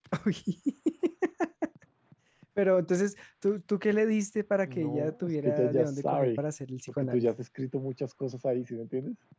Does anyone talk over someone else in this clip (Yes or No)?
Yes